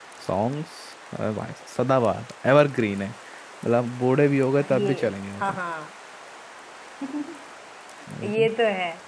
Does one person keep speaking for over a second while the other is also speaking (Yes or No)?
No